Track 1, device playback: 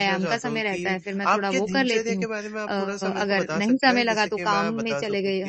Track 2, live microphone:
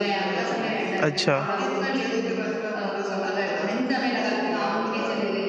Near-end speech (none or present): present